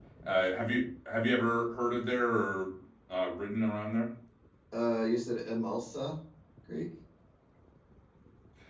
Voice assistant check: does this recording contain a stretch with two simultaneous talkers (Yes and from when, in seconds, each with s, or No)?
No